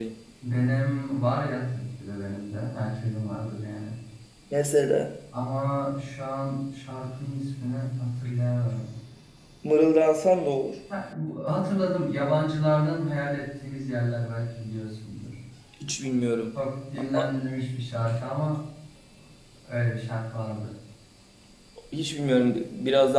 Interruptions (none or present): none